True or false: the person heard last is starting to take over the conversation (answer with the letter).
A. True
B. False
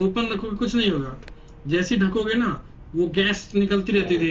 B